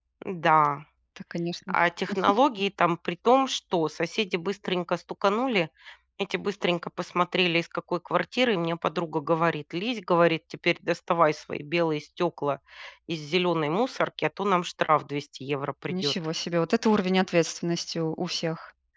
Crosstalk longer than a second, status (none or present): none